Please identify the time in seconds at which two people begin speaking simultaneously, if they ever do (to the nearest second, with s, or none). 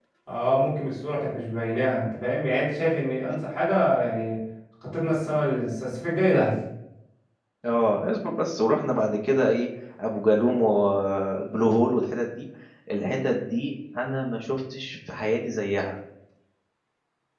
none